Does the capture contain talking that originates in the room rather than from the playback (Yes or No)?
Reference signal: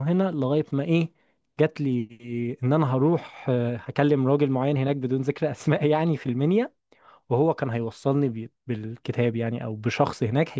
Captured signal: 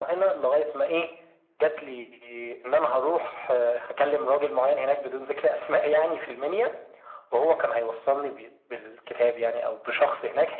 No